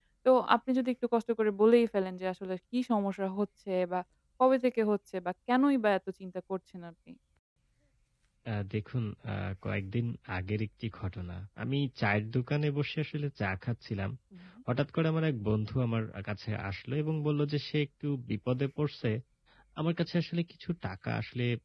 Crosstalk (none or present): none